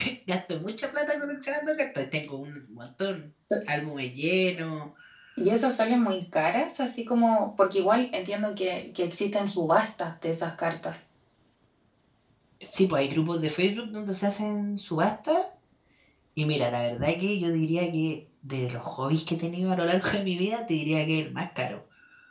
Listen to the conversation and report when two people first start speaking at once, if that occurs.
none

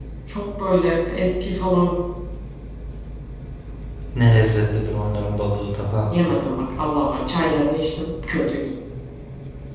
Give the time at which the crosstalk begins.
none

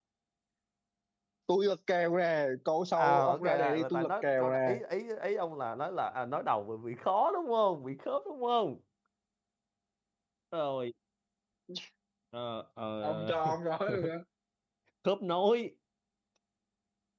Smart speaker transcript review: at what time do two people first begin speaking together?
3.0 s

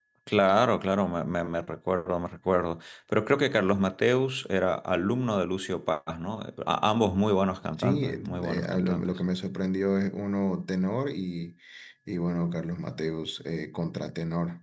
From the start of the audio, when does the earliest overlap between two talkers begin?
7.8 s

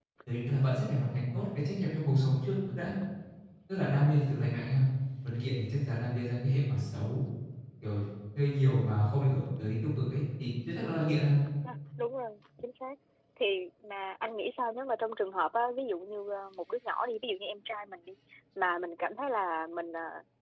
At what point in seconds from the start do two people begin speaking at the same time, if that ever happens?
none

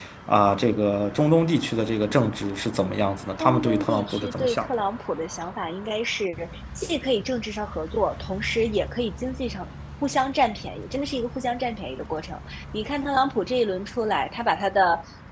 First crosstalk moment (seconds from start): 3.4 s

